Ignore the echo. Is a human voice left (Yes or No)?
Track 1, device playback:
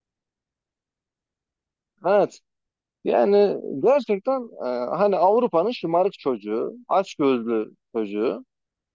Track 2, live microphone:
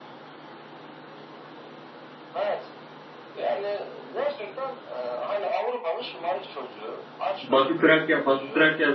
Yes